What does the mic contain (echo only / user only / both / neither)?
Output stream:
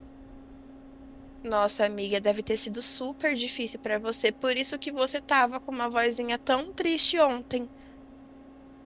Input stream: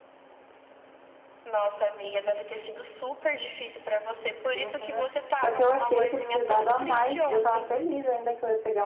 both